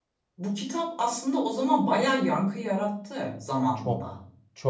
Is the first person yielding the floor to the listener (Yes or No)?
Yes